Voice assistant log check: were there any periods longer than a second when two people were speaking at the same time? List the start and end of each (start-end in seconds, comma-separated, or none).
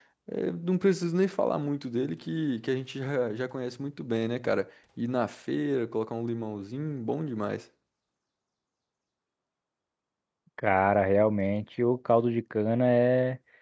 none